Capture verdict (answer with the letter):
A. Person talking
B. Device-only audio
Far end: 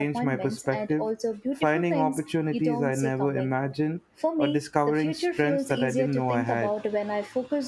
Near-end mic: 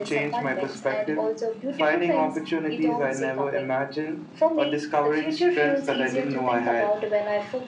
B